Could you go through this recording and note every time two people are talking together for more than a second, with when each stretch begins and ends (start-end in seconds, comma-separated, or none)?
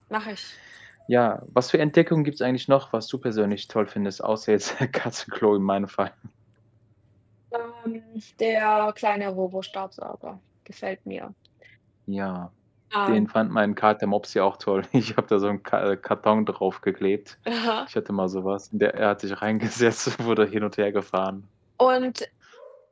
none